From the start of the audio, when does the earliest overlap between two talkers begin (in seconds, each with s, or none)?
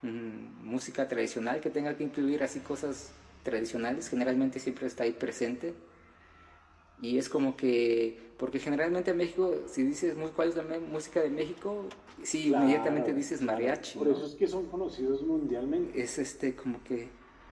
12.5 s